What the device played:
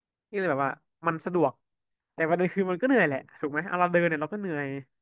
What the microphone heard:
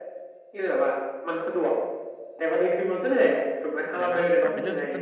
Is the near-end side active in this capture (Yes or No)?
Yes